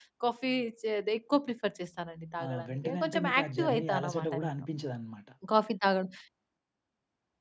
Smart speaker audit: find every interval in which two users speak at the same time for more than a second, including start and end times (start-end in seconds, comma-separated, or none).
2.4-4.6